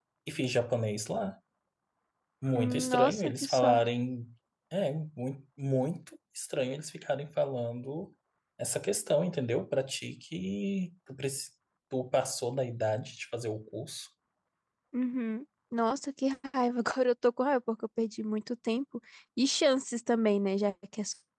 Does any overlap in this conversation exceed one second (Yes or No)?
Yes